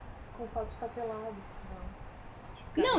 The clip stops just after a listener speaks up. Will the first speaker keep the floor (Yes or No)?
No